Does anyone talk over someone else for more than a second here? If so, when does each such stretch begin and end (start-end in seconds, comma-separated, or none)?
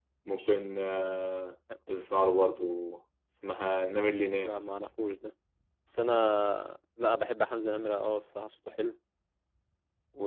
none